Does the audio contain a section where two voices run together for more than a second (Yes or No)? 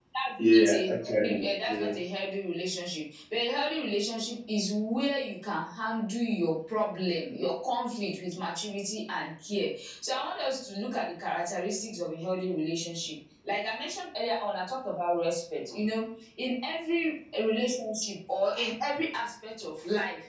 Yes